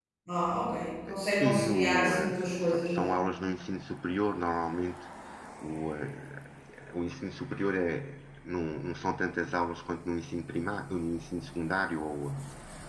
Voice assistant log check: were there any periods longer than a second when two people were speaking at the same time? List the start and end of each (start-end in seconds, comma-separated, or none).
1.3-3.2